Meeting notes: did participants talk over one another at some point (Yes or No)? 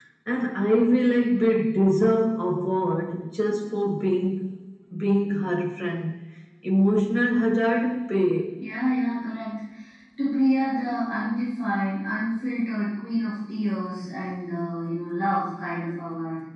No